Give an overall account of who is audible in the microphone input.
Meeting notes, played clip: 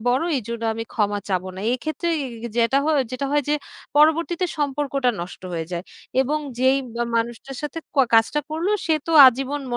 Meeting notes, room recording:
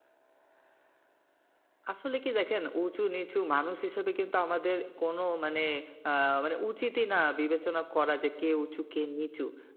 user only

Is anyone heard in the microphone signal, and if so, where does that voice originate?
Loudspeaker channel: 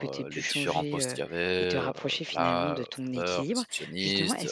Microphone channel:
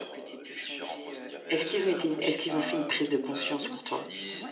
both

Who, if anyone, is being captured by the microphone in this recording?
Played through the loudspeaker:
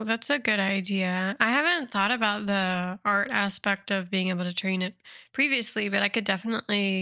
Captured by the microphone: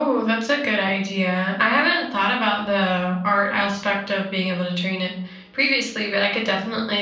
echo only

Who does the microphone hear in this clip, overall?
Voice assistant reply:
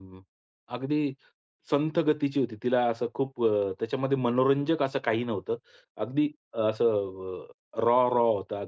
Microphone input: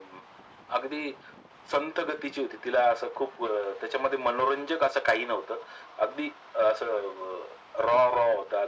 echo only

